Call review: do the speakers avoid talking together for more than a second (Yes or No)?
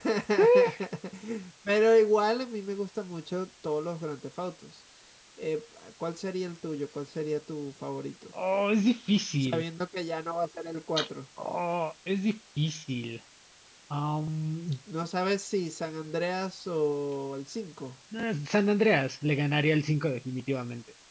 Yes